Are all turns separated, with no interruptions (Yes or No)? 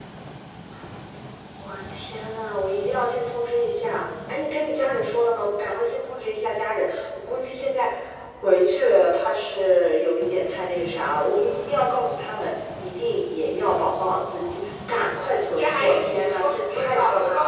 No